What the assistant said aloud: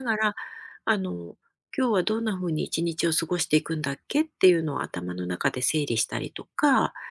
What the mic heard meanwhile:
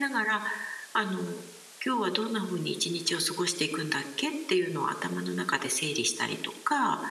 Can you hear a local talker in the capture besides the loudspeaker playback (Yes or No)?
No